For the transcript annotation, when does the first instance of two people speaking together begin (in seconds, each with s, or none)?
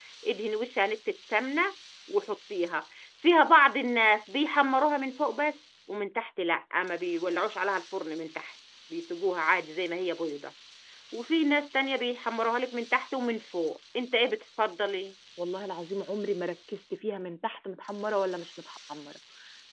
none